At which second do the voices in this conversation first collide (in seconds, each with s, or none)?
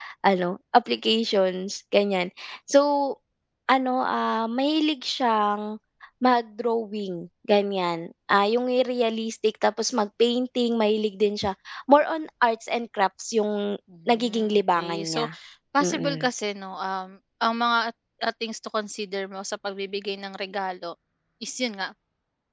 14.1 s